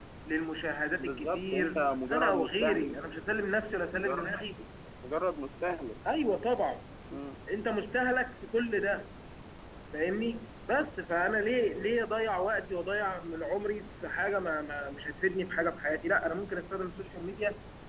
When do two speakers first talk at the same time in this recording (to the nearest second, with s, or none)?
1 s